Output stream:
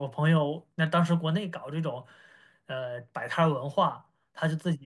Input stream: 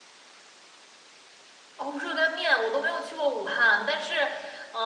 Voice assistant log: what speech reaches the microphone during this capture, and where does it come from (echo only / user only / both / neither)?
user only